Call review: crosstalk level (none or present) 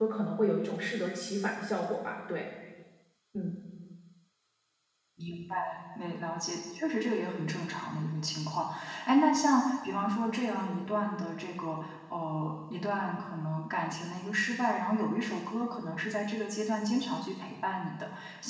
none